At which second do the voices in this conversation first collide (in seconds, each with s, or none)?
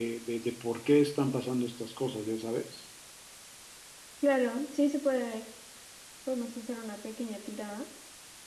none